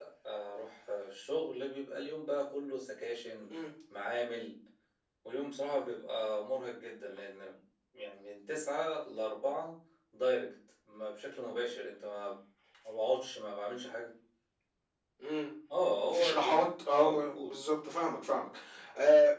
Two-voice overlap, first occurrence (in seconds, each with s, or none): 16.1 s